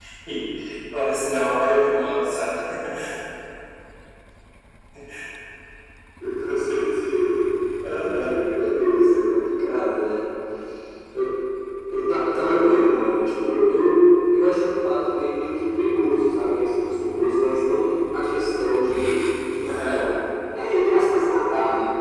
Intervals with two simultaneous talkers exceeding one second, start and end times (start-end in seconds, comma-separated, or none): none